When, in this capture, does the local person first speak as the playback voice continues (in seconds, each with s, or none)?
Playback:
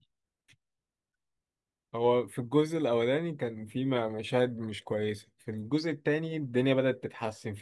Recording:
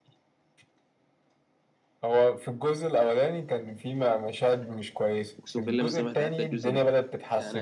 5.4 s